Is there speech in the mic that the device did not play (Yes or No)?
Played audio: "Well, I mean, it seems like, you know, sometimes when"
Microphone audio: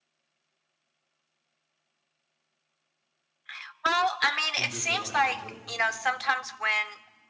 Yes